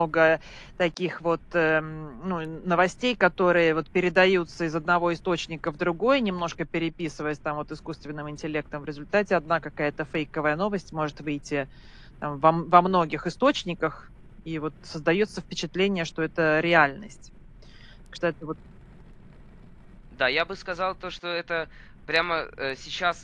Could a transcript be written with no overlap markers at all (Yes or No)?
Yes